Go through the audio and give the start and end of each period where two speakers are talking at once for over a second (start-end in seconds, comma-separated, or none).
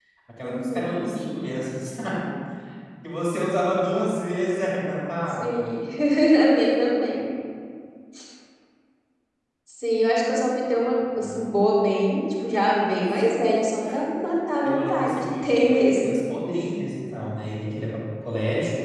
14.6-16.1